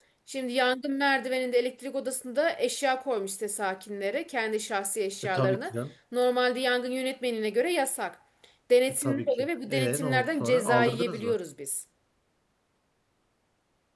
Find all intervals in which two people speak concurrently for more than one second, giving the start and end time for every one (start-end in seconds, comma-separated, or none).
9.0-11.4